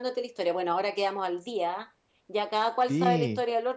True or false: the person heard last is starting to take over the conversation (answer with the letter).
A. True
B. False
B